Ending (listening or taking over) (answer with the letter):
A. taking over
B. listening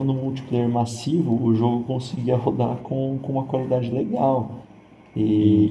B